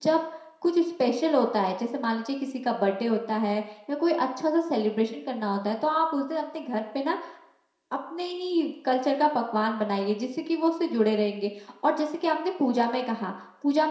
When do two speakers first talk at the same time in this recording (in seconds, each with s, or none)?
none